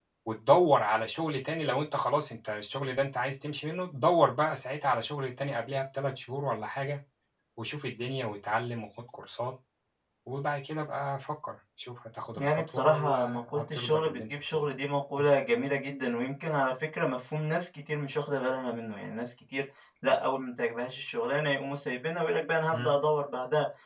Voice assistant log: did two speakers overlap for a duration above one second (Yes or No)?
Yes